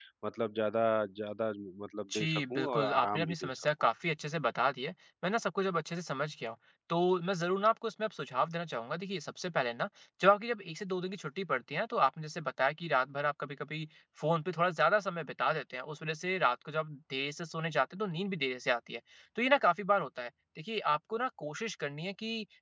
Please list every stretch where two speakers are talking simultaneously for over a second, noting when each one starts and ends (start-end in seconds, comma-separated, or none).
2.1-3.7